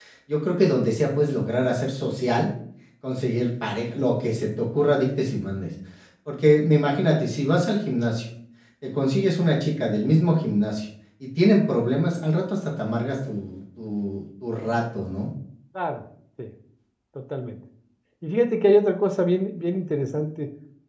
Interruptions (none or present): none